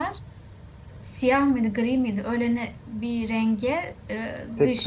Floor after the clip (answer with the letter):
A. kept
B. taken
A